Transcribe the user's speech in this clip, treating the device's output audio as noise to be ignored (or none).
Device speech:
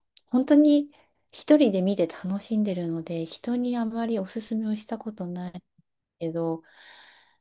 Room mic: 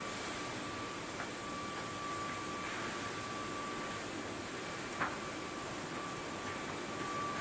none